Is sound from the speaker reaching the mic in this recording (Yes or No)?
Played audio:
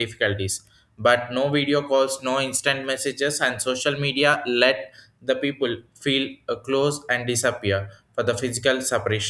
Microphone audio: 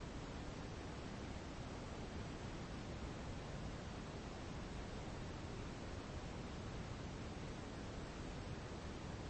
No